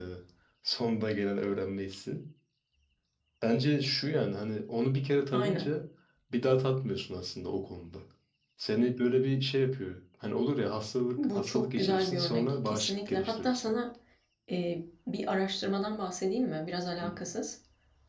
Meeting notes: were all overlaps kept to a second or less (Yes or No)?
No